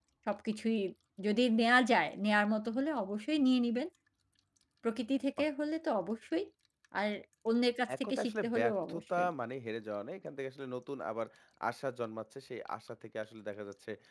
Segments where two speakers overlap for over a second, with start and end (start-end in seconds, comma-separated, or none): 8.0-9.3